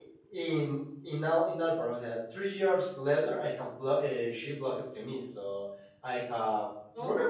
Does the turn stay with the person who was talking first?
Yes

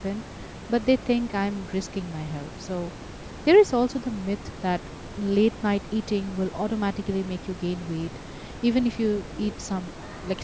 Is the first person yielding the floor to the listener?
No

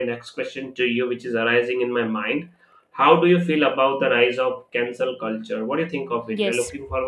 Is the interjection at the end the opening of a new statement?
Yes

